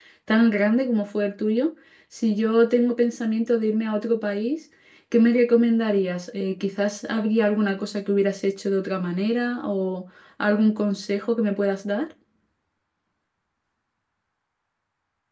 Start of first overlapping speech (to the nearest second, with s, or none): none